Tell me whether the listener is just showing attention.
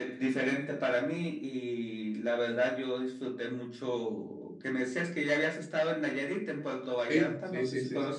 No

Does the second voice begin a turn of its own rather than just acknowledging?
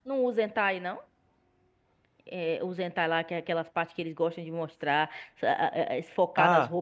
Yes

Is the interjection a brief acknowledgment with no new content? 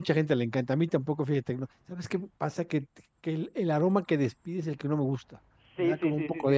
No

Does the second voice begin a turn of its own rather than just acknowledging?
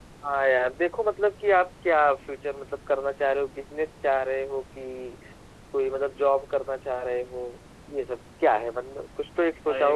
Yes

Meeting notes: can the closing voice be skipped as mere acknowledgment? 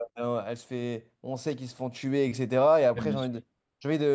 Yes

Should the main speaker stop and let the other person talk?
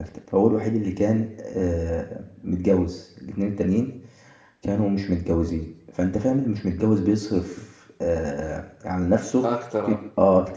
No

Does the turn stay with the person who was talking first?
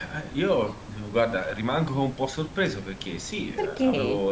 Yes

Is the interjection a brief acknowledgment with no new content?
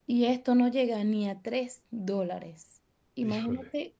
Yes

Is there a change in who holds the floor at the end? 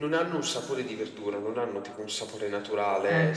No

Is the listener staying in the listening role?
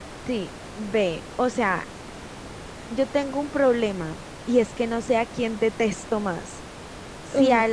Yes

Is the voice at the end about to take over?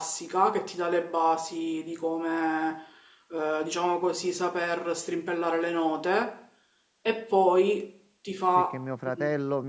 Yes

